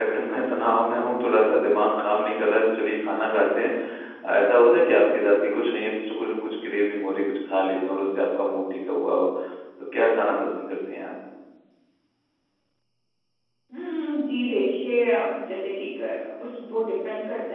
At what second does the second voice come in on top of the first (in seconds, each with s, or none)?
none